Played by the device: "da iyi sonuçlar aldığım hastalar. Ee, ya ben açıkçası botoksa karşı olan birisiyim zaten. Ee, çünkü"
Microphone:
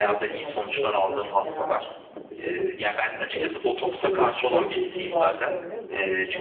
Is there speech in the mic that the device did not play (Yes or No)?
Yes